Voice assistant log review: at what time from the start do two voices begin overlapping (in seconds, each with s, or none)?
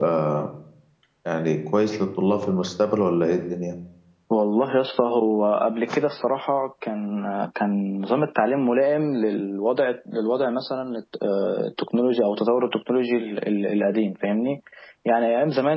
none